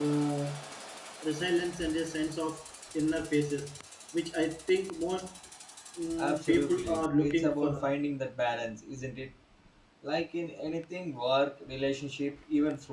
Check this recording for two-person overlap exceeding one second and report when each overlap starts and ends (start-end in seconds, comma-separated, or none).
6.2-7.9